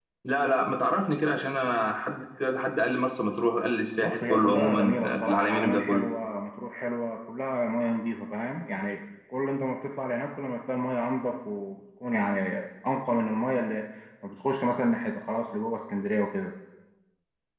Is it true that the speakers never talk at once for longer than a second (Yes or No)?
No